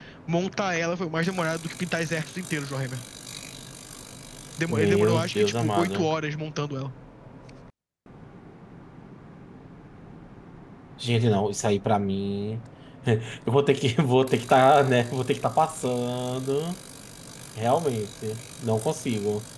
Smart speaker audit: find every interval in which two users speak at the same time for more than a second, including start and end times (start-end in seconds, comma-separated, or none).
4.7-6.1